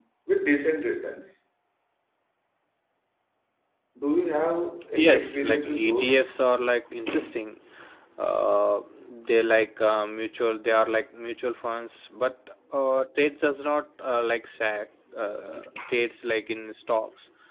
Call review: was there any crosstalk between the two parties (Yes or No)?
Yes